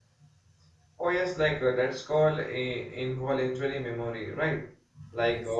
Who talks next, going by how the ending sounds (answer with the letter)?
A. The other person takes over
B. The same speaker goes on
B